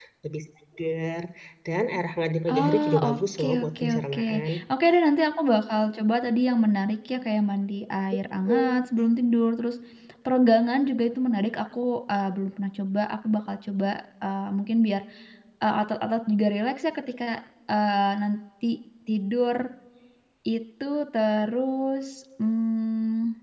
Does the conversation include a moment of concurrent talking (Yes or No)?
Yes